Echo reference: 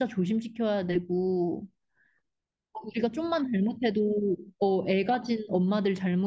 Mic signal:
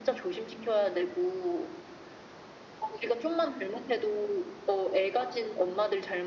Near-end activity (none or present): none